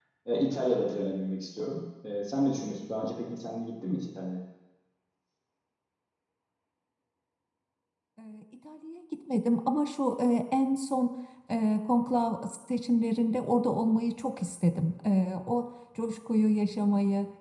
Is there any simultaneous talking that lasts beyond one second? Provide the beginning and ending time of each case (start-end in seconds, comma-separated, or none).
none